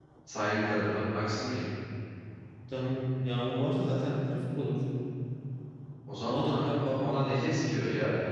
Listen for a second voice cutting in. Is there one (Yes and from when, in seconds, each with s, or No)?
Yes, from 6.3 s